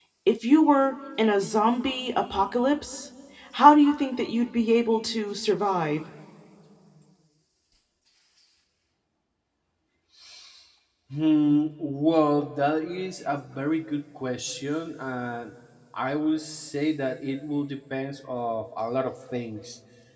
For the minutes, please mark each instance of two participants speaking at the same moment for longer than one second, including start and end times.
none

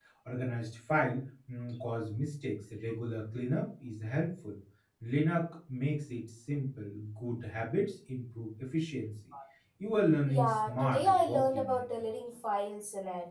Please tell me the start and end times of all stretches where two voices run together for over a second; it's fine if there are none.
10.3-11.8

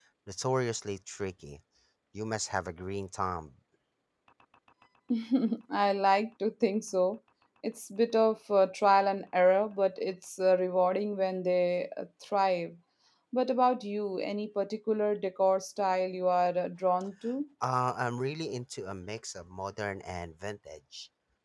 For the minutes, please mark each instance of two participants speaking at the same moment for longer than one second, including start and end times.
none

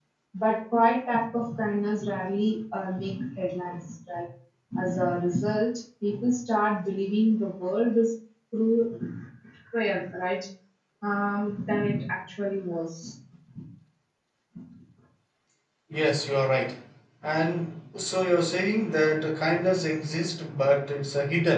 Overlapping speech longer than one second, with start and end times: none

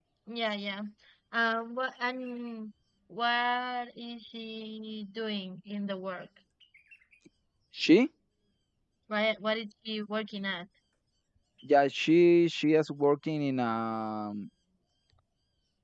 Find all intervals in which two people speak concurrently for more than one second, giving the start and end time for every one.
none

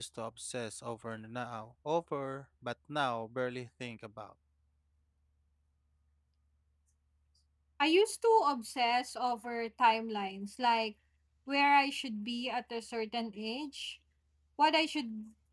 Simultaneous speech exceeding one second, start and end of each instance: none

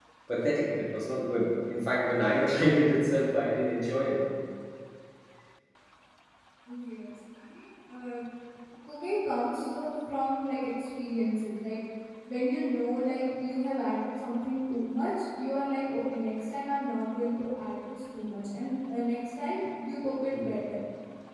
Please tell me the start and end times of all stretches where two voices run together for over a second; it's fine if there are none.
none

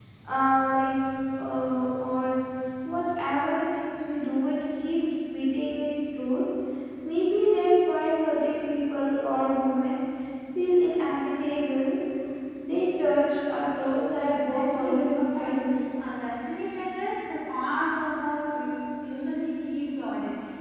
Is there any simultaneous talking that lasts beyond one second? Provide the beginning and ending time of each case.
14.3-15.8

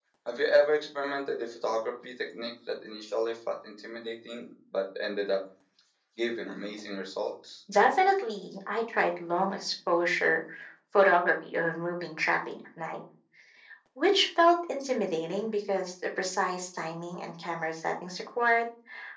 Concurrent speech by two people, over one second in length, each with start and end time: none

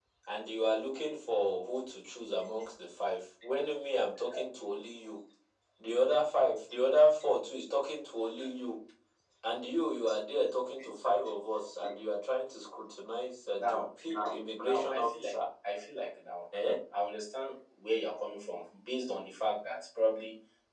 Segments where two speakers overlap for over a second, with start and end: 13.5-15.3

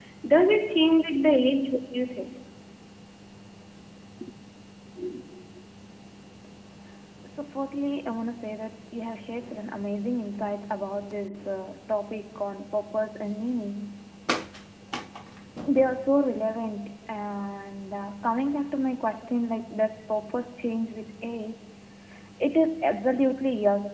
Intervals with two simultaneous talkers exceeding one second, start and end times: none

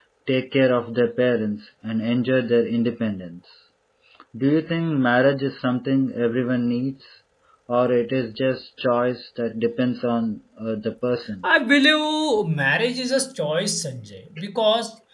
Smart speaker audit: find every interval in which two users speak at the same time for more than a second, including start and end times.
none

